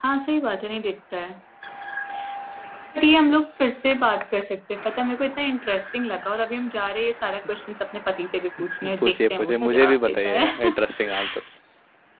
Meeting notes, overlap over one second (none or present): present